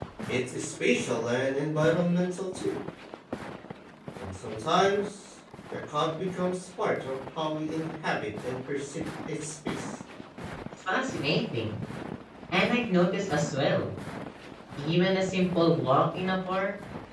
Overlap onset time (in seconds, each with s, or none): none